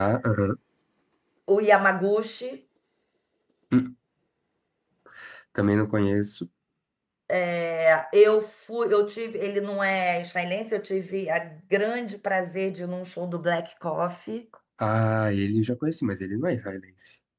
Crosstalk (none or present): none